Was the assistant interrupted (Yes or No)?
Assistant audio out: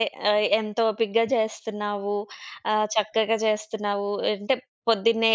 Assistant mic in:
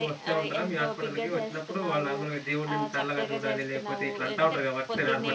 Yes